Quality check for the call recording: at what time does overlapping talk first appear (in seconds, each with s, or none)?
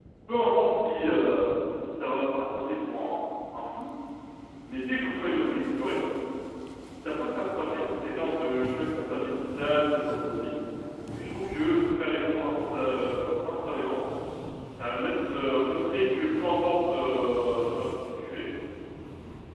none